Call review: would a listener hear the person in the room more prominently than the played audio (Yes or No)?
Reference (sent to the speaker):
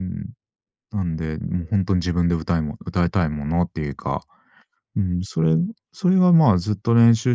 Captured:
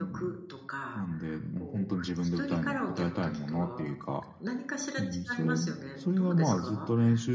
No